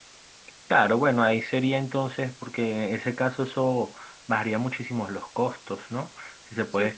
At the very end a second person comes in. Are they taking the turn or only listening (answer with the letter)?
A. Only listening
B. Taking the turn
A